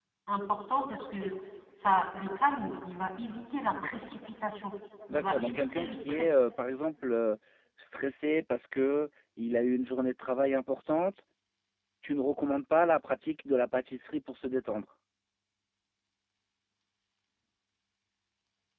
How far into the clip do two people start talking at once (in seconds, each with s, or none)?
5.1 s